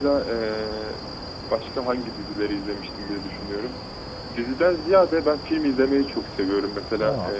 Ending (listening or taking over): listening